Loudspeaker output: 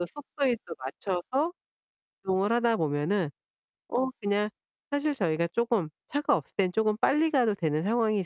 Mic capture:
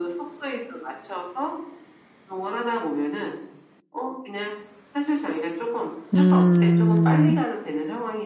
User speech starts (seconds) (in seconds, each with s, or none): 6.1 s